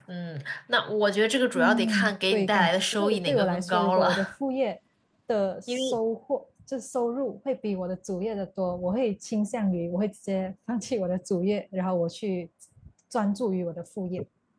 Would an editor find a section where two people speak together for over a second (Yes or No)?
Yes